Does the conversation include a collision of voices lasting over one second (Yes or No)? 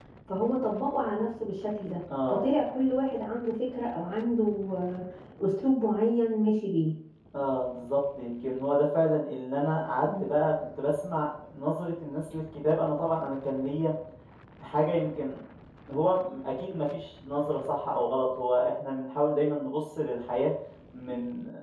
No